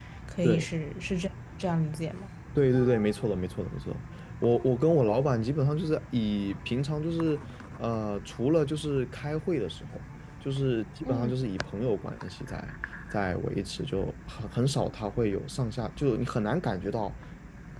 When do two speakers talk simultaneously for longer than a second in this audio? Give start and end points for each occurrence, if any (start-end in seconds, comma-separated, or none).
none